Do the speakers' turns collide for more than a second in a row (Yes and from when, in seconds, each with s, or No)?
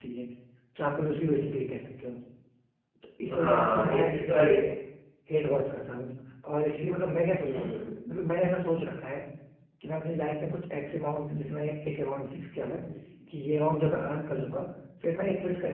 Yes, from 3.3 s